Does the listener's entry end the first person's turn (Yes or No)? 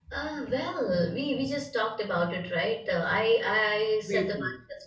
No